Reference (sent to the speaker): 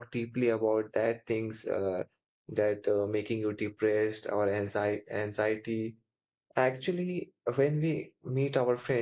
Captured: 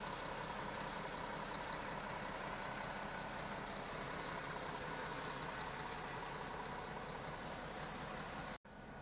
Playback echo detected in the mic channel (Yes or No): No